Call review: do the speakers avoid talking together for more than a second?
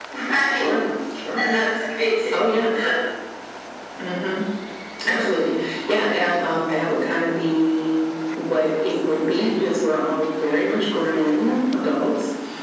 Yes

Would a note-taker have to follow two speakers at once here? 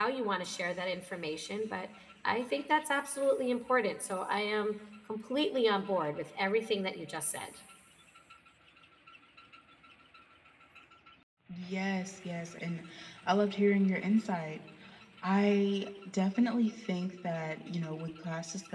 No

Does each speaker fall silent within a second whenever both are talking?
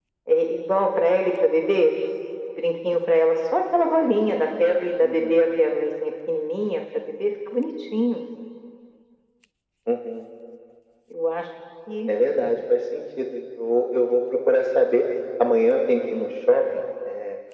Yes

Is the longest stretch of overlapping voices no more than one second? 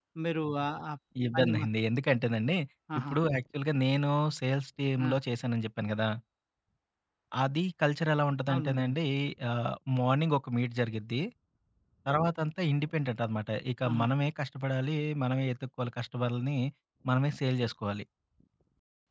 Yes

